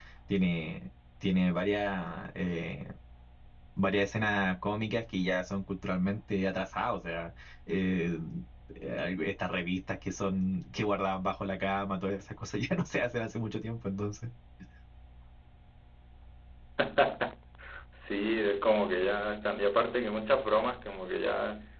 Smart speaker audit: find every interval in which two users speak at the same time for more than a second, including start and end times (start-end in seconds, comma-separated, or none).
none